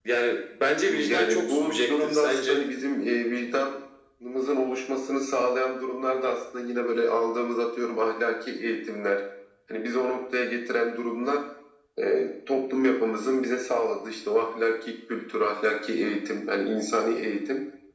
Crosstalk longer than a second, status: present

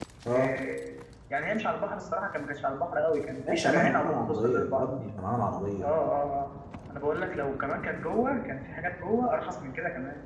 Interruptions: present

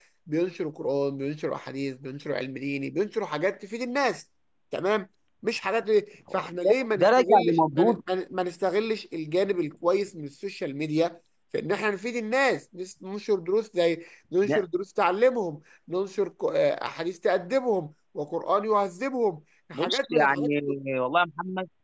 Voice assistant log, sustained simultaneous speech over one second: present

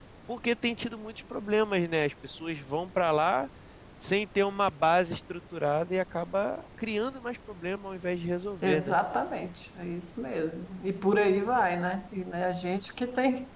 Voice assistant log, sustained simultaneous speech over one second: none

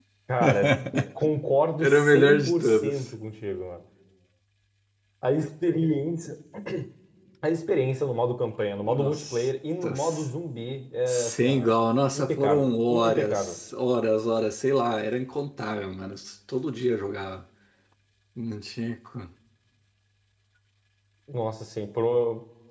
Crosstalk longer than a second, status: present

